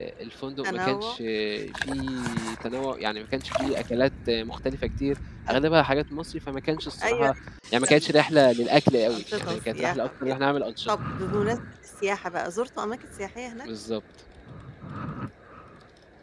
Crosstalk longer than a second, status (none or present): present